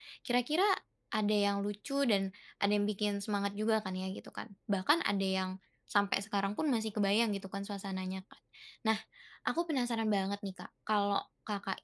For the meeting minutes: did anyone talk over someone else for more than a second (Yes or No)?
No